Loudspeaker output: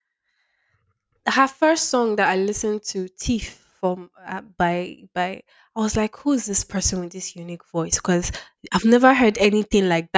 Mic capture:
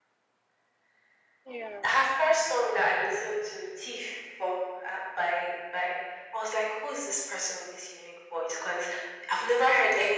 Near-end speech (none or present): present